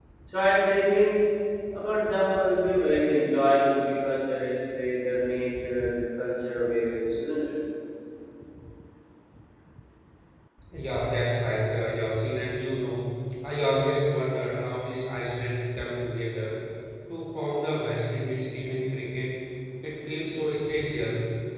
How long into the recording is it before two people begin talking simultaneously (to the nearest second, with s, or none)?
none